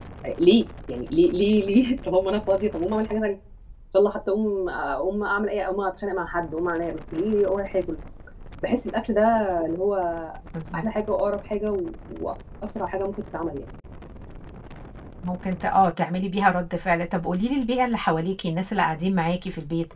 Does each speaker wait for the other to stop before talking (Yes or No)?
Yes